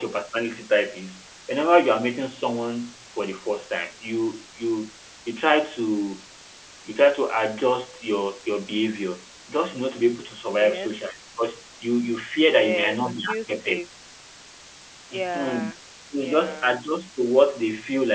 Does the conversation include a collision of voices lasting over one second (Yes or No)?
Yes